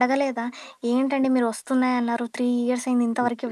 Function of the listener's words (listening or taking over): taking over